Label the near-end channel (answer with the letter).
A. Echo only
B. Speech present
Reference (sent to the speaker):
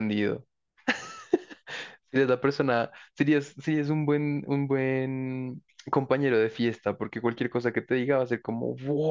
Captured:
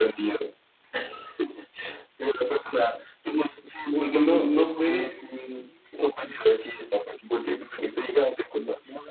B